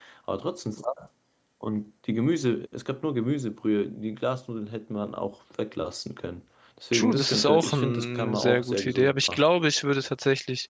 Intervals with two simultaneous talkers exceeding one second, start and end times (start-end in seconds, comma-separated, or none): 6.9-9.4